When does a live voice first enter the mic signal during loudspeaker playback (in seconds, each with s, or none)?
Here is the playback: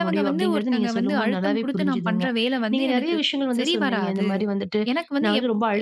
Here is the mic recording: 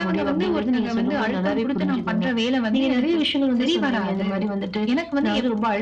none